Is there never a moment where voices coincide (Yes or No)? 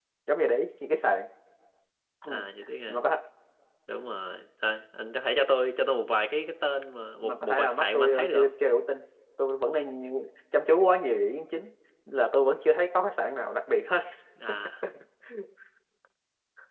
No